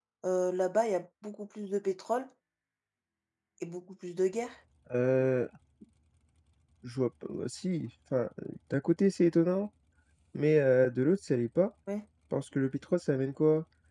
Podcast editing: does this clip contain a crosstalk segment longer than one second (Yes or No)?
No